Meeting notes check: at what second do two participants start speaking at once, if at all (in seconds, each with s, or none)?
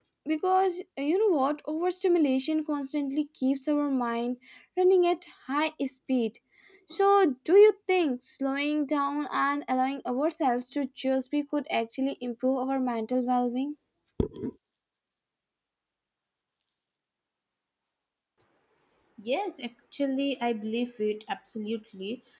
none